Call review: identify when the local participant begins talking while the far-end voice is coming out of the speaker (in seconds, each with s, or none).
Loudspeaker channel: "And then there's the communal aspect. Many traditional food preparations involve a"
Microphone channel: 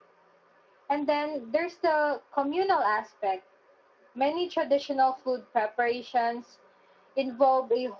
none